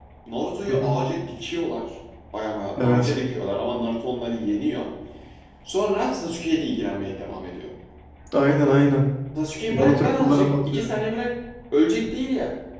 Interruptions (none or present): present